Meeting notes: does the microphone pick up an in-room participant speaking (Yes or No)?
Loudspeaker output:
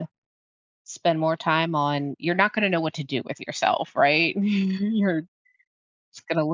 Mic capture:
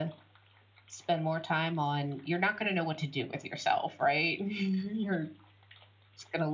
No